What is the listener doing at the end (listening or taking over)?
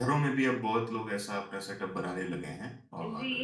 taking over